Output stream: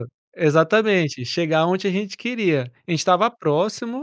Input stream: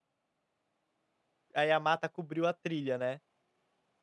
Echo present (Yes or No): No